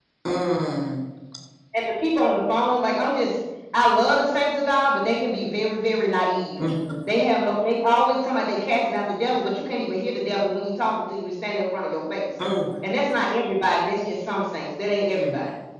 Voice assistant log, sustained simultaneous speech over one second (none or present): none